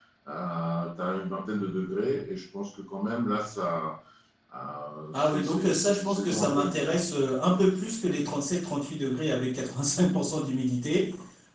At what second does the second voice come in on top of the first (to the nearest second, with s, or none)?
5 s